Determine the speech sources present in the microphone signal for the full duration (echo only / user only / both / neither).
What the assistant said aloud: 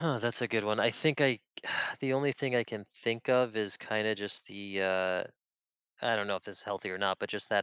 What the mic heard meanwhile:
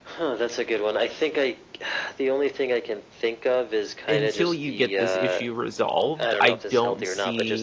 both